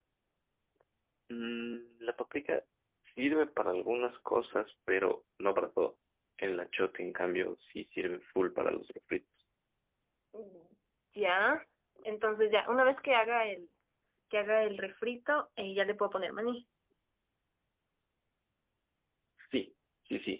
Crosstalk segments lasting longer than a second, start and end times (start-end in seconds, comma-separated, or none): none